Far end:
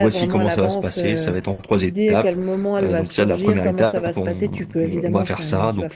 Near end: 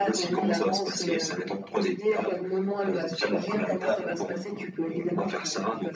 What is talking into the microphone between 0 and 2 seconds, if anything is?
echo only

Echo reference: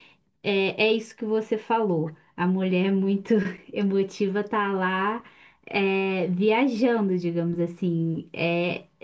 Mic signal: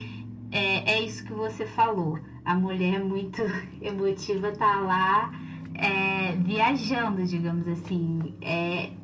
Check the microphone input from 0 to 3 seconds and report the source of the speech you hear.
echo only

